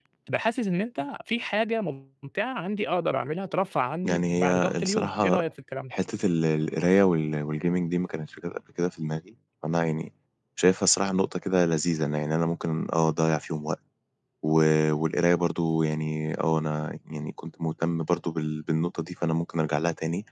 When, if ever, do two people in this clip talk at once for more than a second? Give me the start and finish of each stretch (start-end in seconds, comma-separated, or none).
4.0-5.4